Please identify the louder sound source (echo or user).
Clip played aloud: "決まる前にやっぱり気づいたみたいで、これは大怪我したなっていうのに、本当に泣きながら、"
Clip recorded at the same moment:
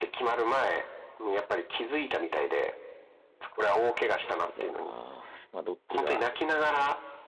echo